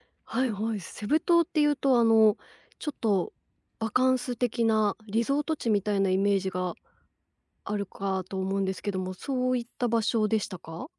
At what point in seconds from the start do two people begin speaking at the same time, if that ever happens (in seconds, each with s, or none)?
none